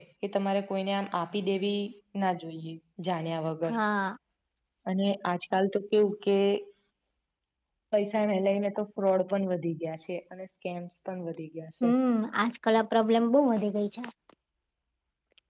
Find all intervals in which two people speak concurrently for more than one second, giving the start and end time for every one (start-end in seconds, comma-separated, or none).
none